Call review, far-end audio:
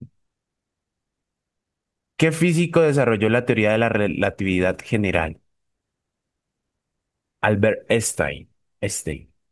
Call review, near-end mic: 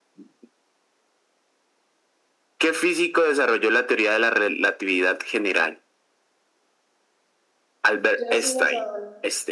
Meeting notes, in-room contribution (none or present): present